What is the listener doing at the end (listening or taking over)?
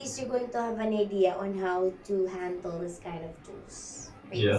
listening